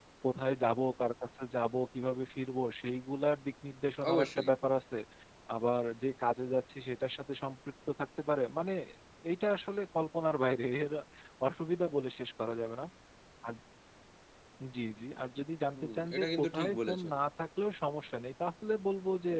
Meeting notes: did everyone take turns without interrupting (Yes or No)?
No